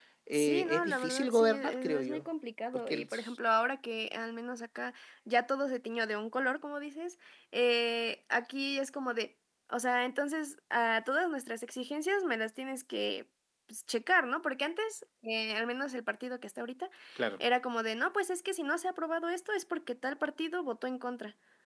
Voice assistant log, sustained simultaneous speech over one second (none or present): present